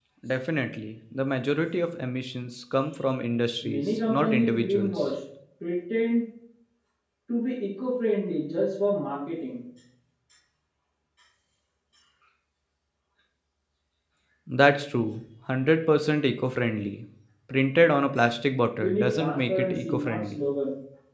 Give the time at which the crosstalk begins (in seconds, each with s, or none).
3.6 s